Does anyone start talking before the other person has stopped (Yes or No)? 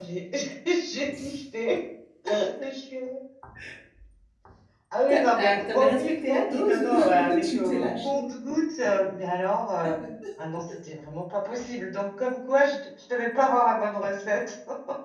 Yes